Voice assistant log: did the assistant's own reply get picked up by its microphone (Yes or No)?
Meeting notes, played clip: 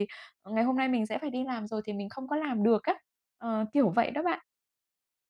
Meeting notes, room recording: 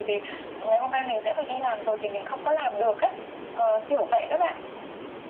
Yes